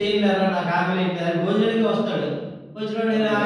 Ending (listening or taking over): listening